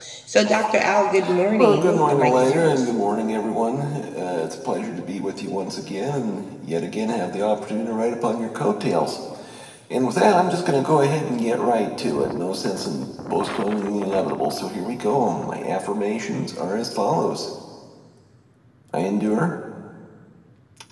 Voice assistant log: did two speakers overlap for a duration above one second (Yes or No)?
Yes